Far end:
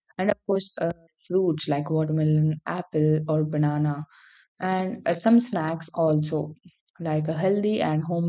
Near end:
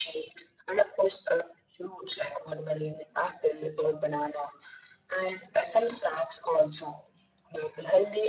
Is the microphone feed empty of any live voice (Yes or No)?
Yes